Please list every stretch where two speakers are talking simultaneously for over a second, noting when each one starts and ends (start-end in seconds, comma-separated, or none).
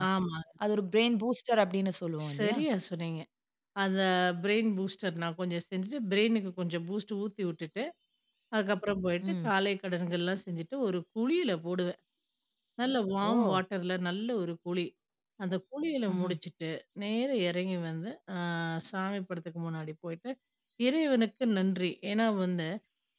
none